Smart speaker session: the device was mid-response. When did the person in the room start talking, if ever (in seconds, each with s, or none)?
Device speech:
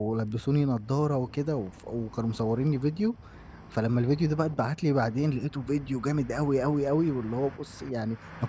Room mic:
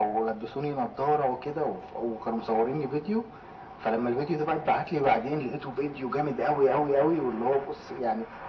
none